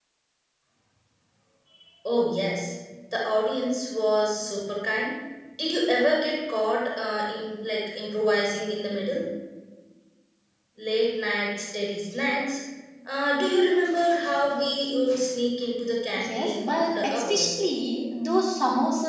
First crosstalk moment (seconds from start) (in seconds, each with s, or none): 16.2 s